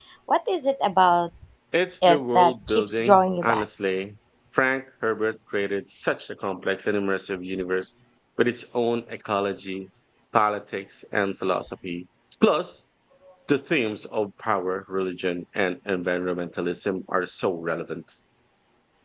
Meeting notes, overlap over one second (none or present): present